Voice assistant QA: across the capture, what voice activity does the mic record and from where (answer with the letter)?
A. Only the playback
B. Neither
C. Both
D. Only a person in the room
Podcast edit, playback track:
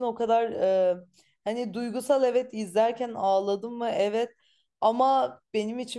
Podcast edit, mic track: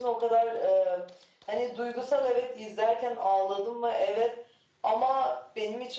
A